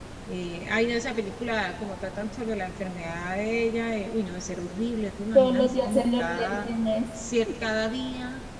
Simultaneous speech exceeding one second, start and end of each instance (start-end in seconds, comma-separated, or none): 5.3-6.7